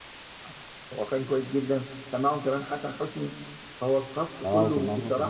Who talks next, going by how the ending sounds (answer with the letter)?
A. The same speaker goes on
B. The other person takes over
B